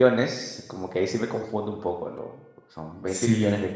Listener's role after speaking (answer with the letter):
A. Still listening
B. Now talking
A